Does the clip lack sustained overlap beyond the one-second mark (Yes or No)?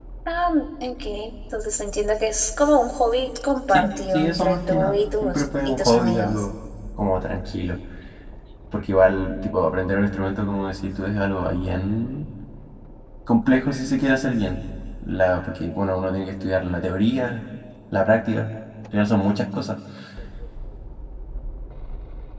No